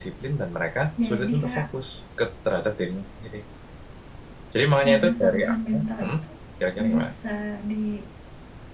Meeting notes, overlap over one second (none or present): present